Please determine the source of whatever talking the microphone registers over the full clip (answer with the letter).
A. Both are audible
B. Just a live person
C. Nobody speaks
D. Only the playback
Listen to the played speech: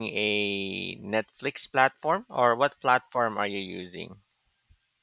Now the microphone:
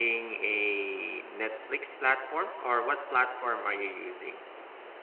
D